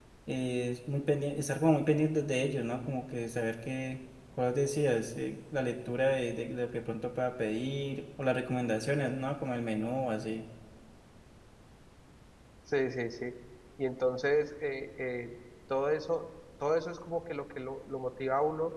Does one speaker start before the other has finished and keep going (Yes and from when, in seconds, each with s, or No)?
No